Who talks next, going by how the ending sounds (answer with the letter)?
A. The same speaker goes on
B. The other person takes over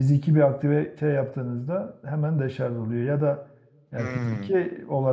A